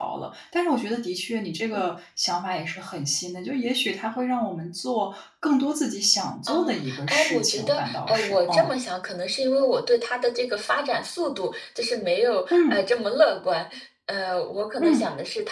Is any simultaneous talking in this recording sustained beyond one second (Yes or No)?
Yes